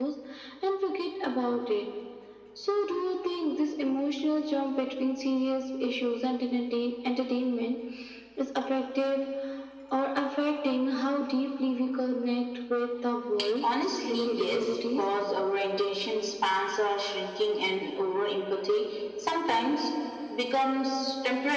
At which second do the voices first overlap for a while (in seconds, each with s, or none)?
13.4 s